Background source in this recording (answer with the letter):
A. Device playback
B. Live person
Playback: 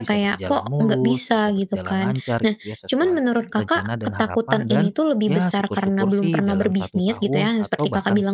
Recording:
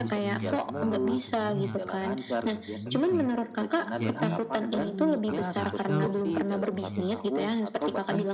B